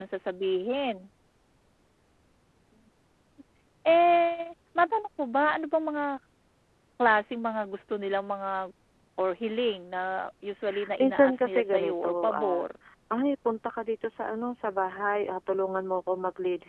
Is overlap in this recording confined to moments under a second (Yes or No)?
No